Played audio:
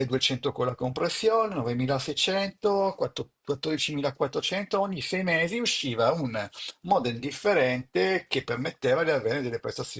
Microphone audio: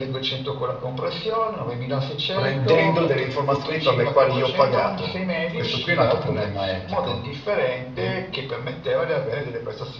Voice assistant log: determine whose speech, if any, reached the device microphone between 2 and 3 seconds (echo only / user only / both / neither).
both